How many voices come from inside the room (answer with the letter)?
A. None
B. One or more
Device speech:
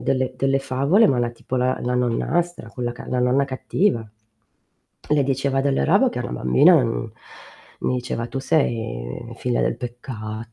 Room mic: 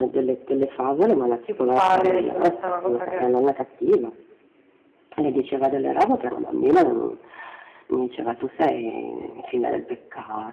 B